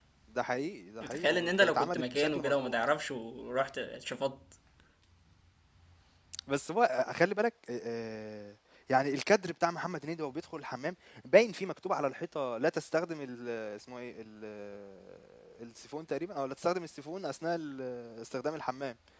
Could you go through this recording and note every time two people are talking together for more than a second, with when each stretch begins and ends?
1.1-2.8

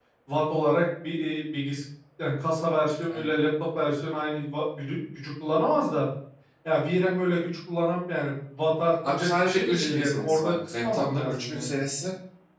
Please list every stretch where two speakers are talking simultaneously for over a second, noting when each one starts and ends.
9.1-11.8

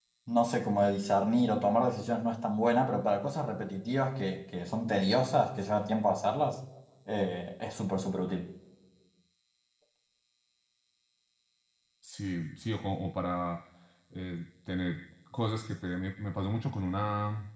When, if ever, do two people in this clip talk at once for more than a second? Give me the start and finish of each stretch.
none

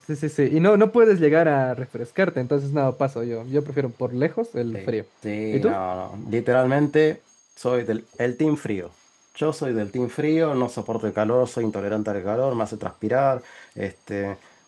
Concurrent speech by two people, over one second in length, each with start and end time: none

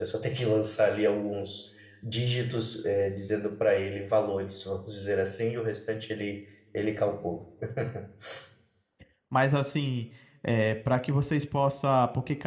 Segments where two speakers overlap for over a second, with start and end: none

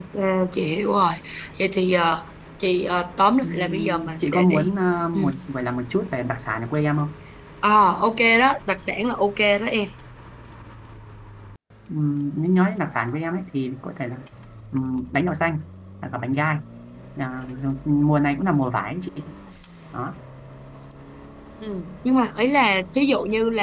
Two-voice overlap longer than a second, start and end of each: 3.4-4.7

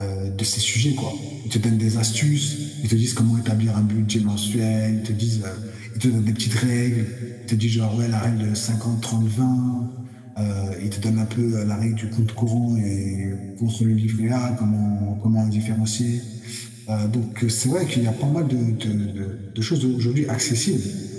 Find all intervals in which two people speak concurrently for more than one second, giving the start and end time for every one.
none

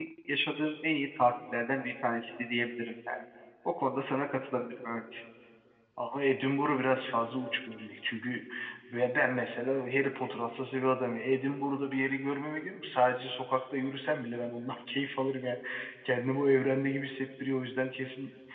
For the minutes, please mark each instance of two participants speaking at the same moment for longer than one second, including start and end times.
none

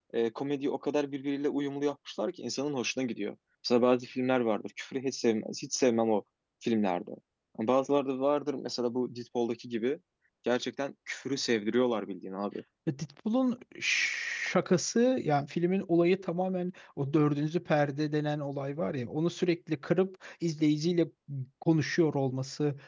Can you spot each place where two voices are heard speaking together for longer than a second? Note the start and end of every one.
none

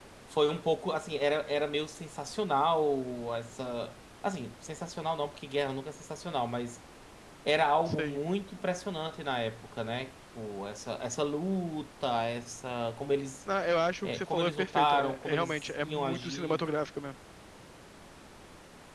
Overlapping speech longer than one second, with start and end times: 14.0-16.6

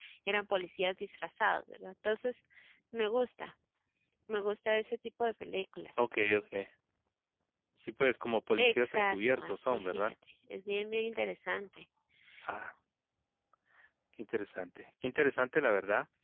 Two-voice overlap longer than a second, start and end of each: 8.6-10.1

